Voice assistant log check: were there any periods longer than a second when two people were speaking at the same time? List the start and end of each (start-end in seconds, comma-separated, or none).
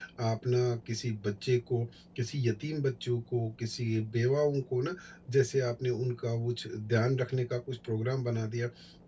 none